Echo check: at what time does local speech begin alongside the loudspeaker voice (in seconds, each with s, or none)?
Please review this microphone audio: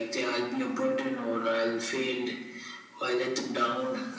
none